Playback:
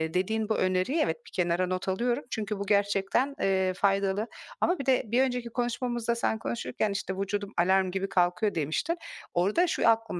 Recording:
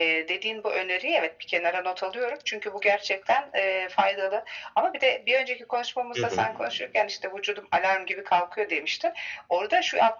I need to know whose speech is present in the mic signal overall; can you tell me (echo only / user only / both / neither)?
both